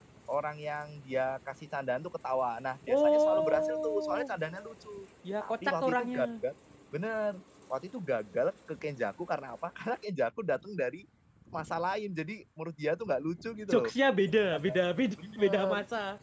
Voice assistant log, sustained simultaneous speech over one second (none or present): present